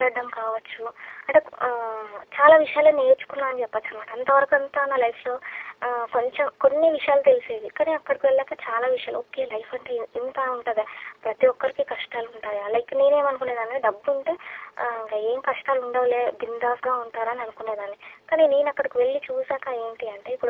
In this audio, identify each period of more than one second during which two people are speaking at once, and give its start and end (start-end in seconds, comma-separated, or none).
none